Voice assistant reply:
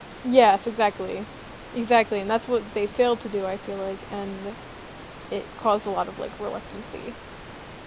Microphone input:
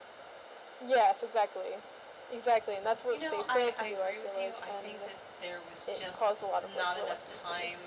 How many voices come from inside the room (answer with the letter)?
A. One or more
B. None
A